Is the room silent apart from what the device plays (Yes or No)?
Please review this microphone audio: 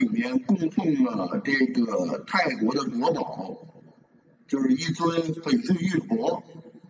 Yes